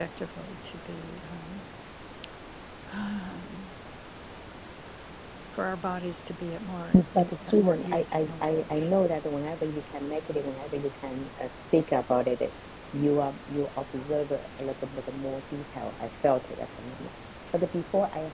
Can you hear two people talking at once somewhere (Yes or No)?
Yes